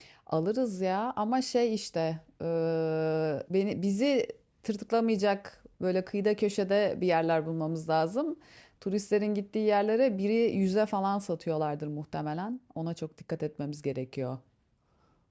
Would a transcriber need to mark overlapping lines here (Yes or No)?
No